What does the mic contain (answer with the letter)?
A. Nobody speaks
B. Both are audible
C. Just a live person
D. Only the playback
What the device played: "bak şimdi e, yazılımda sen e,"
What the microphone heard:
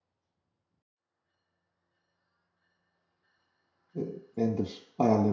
C